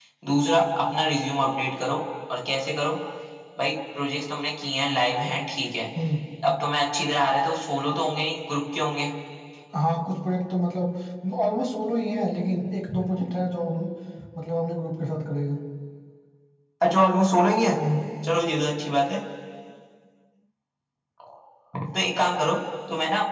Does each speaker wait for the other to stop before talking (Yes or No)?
Yes